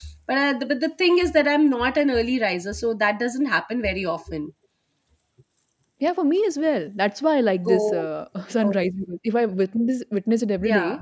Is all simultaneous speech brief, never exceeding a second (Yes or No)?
Yes